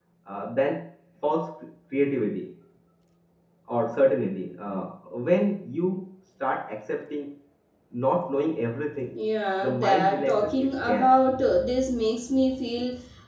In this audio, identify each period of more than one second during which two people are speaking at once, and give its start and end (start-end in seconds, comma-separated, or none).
9.6-11.2